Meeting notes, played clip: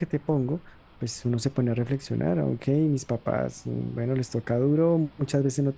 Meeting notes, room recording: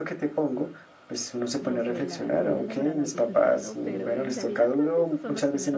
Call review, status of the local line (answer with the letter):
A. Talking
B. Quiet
A